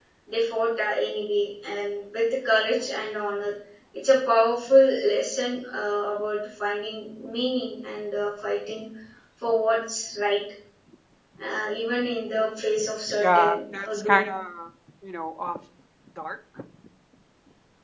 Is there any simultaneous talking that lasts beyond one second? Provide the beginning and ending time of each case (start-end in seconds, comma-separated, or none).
13.1-14.3